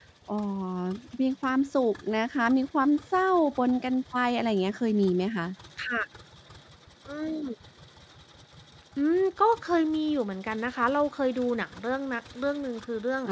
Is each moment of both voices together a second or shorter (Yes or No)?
Yes